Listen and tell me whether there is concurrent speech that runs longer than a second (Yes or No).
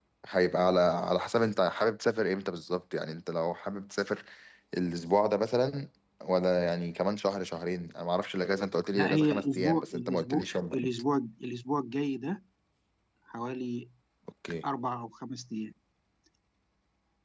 Yes